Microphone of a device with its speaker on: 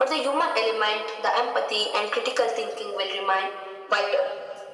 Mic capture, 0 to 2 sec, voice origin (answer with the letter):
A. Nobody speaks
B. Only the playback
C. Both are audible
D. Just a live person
B